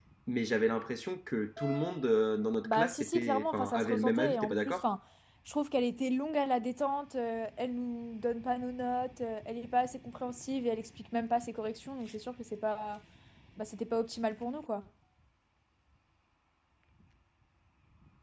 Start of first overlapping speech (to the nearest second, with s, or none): 3 s